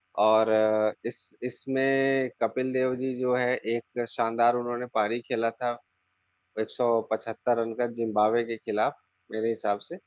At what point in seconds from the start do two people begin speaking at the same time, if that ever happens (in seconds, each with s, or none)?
none